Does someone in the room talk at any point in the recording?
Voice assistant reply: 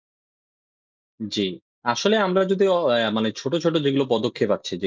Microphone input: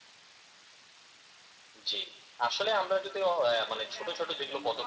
Yes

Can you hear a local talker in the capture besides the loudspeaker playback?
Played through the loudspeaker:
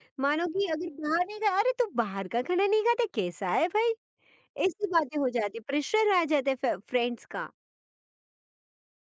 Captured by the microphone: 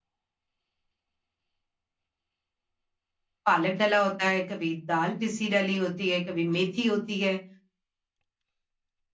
Yes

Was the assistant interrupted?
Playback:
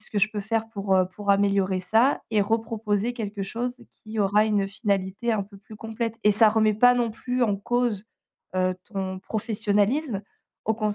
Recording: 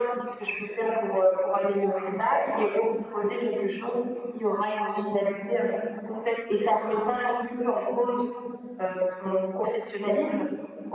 No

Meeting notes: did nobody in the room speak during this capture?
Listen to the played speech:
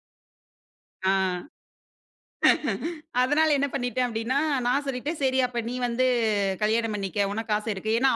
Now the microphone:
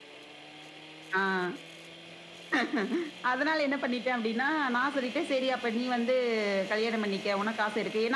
Yes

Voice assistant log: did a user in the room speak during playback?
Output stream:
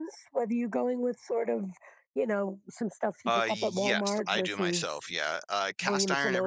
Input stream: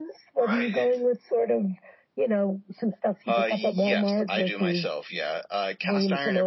Yes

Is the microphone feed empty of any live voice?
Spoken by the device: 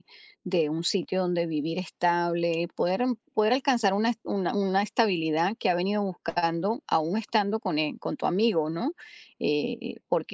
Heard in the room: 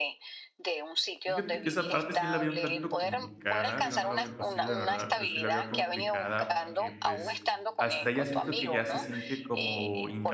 No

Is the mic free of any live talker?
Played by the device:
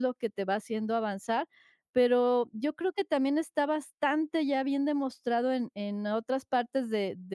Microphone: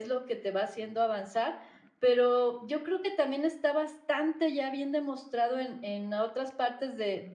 Yes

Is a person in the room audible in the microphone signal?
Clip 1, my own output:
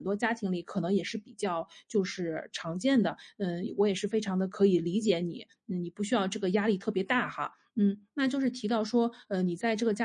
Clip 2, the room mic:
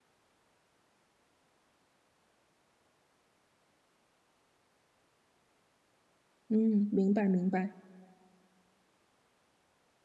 Yes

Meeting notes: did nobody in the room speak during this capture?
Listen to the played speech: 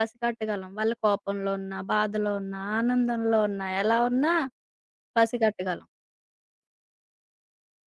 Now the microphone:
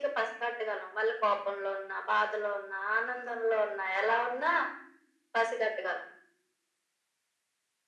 Yes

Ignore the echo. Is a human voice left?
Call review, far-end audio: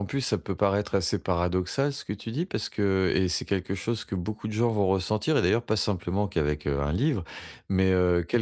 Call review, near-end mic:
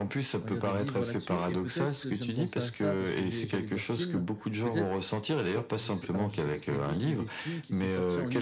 Yes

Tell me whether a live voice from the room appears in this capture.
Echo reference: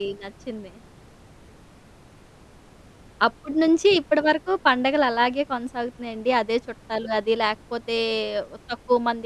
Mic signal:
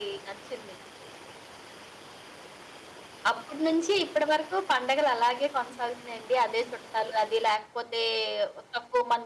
No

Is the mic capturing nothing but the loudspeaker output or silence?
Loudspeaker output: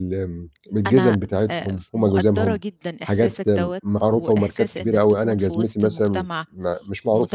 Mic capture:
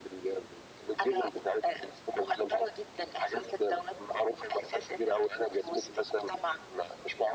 Yes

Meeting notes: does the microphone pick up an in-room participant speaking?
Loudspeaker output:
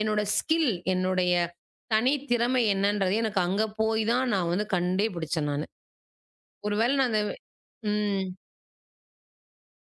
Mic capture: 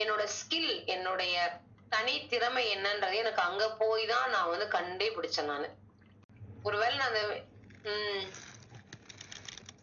No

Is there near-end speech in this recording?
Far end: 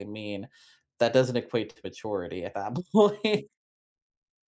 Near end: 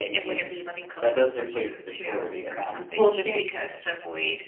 Yes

